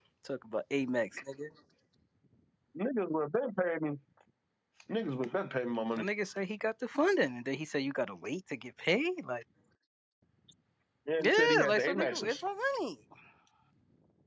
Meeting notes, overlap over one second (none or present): present